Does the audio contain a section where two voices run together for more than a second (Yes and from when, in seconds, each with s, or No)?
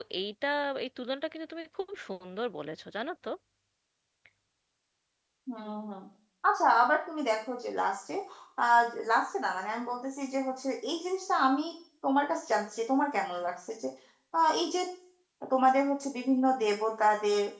No